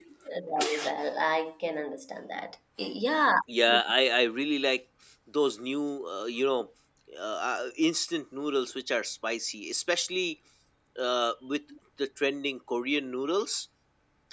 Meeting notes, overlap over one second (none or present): none